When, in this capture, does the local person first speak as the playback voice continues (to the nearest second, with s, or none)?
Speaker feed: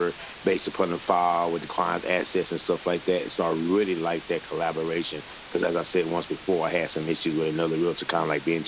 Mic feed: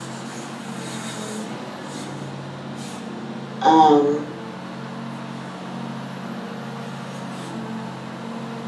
4 s